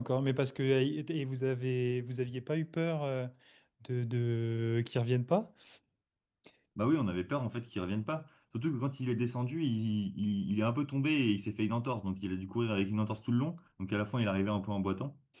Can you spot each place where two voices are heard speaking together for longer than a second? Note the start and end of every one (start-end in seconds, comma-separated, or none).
none